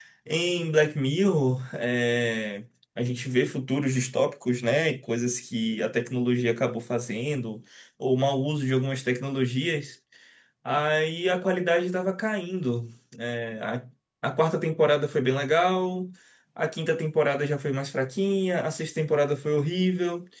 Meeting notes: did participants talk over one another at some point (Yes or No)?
No